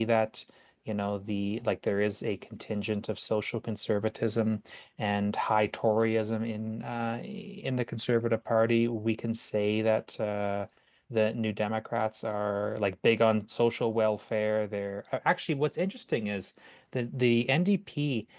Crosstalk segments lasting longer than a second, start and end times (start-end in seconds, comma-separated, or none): none